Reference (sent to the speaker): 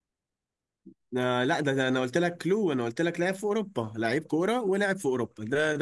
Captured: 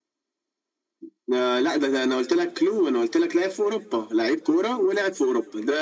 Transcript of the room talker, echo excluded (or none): none